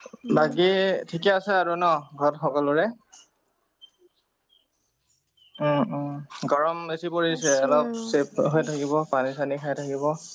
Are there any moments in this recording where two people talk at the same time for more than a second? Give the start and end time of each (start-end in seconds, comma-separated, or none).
7.3-8.7